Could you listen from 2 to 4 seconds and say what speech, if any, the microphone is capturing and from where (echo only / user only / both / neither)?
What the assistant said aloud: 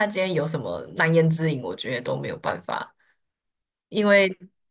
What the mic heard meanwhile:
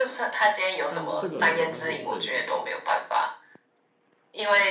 both